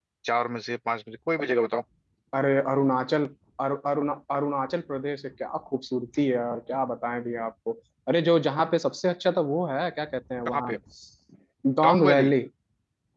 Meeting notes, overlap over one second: none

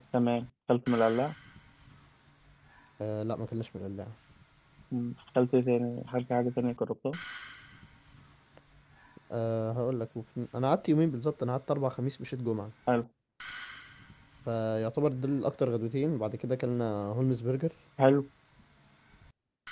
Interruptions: none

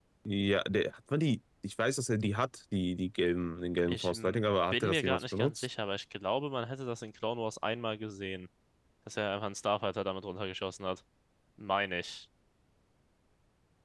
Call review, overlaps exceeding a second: present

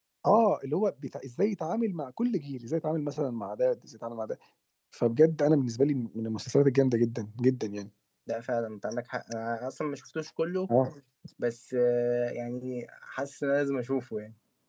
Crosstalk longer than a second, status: none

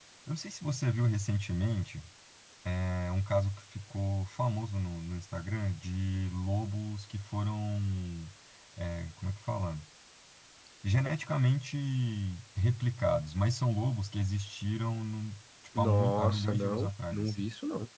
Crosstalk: present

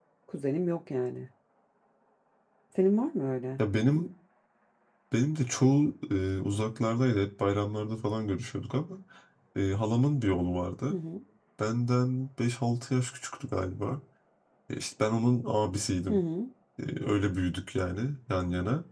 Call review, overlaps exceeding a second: none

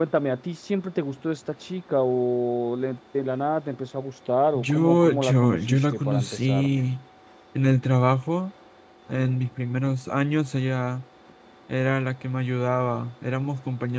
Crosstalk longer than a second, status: present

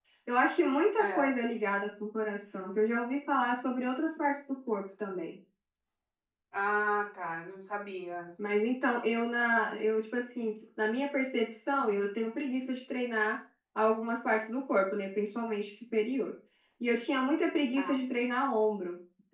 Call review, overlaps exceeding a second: none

